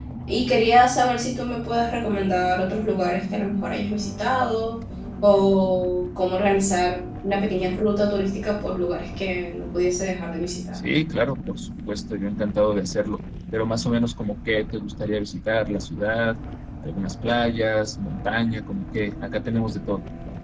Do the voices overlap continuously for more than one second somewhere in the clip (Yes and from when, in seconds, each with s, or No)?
No